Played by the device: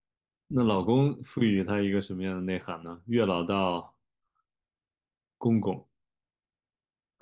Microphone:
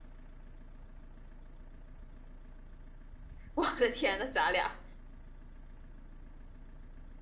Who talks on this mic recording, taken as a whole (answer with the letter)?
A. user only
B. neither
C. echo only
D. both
A